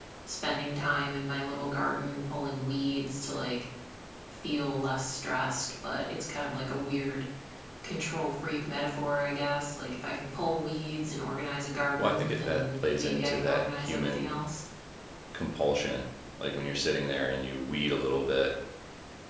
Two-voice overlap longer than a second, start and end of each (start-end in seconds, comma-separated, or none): 12.0-14.3